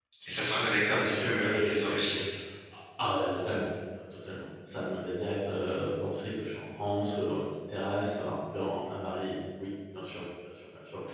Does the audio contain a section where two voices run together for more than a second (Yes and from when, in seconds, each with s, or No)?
Yes, from 0.5 s